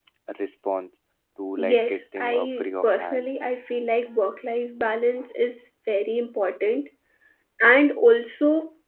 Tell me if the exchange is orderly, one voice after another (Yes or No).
No